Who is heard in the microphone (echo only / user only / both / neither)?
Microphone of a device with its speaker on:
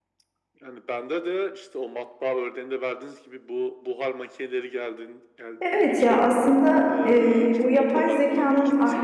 both